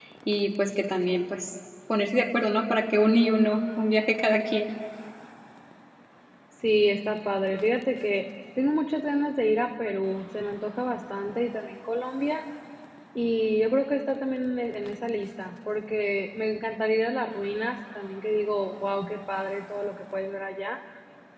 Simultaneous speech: No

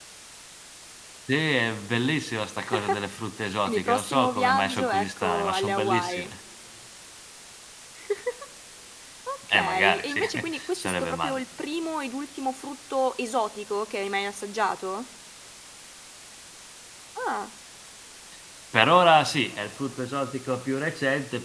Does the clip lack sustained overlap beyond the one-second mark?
No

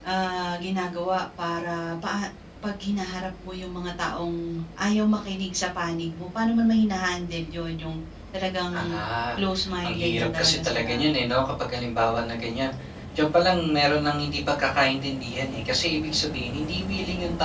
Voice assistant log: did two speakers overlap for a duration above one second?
Yes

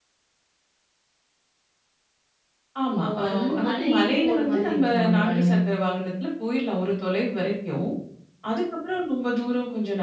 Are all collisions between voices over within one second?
No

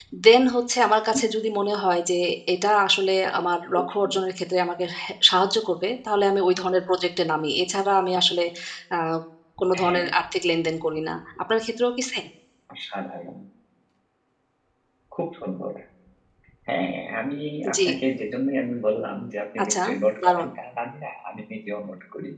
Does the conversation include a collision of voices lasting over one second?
No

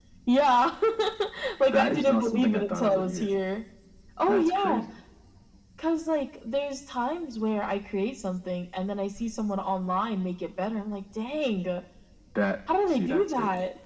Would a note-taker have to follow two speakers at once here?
Yes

